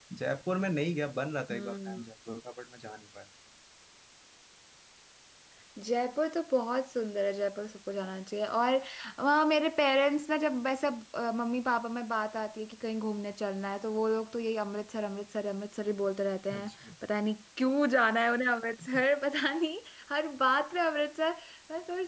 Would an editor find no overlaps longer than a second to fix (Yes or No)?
Yes